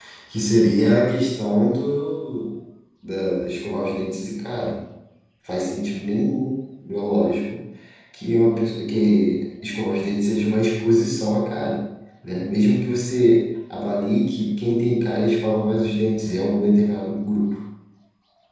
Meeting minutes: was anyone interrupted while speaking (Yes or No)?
No